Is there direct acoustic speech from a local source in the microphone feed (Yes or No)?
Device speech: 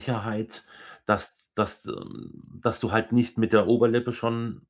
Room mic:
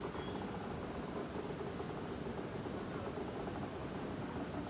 No